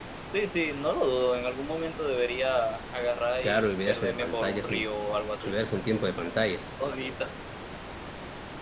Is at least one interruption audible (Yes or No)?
Yes